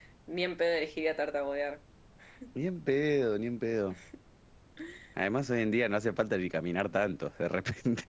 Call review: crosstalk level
none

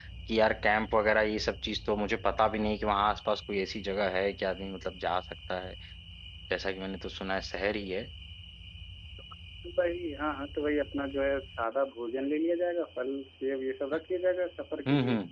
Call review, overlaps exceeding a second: none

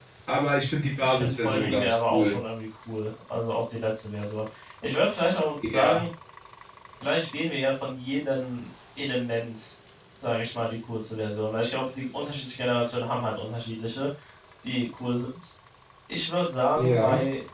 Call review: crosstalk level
present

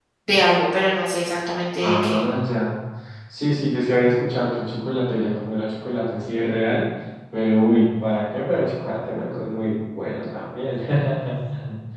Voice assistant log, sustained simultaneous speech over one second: none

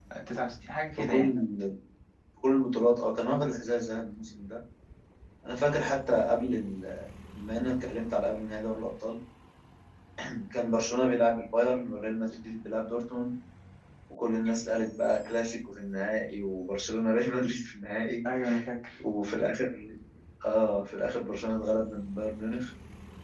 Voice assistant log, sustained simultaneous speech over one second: none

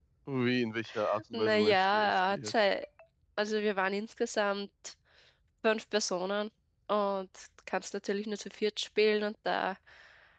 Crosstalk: present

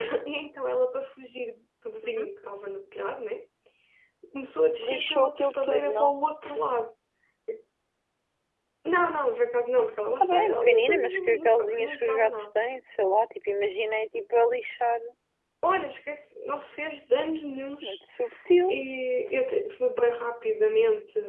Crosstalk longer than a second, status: present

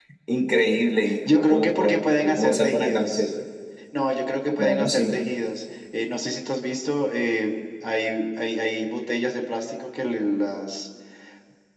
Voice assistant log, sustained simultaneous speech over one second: present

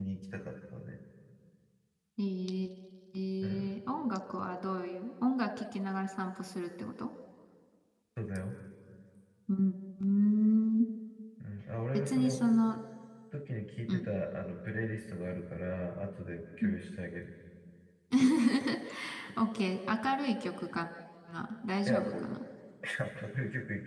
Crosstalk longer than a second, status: none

